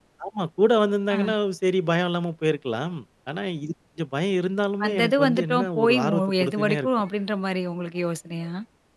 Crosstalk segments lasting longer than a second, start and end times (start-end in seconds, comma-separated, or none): 4.8-6.9